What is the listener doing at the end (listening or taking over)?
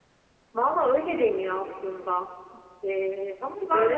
taking over